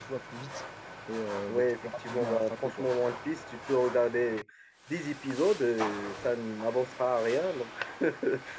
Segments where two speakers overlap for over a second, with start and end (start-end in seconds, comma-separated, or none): 1.5-2.9